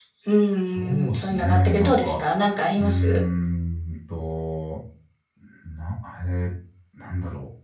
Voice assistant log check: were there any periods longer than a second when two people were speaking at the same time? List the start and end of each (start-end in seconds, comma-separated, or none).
0.8-2.2